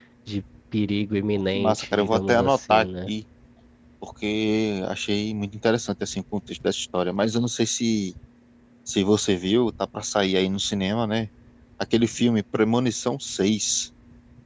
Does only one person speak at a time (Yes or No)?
No